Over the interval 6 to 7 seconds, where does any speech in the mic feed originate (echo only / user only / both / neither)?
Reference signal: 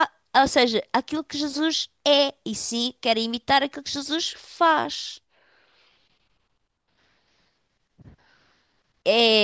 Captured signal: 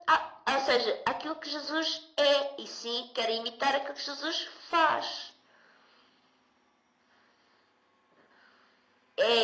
neither